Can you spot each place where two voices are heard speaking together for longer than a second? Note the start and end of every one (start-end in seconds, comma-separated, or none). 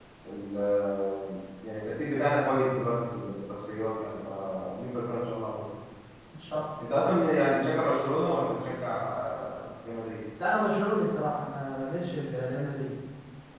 none